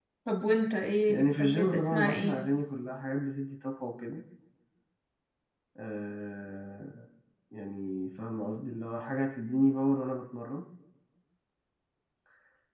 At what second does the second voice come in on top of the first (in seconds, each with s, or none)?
1.1 s